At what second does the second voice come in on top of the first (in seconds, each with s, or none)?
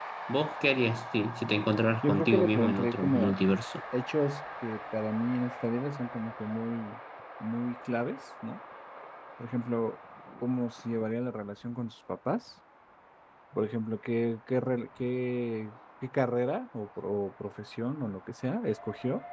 2.0 s